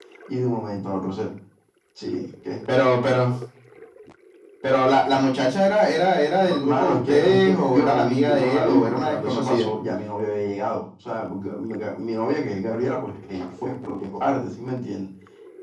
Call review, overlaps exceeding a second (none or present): present